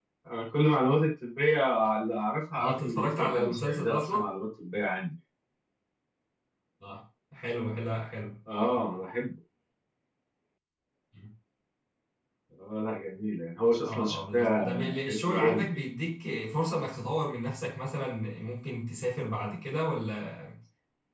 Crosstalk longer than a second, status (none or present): present